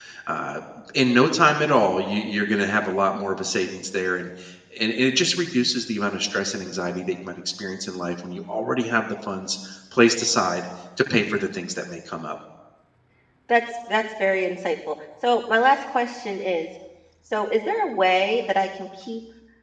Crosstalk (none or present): none